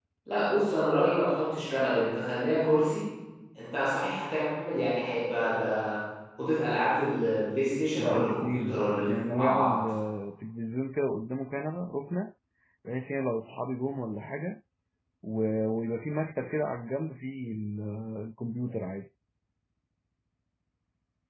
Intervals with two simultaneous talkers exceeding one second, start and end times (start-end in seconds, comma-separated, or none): 8.0-9.7